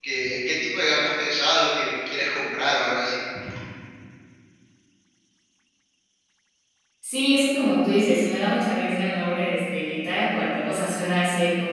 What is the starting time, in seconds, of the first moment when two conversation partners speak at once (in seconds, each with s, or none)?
none